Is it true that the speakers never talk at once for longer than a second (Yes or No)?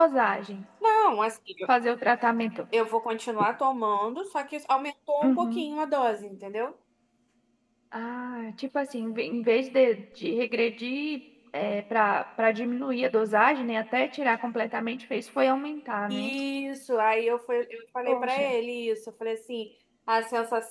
Yes